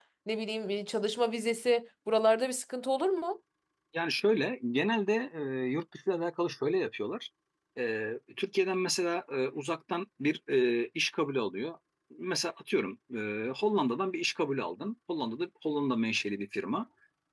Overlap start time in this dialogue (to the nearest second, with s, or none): none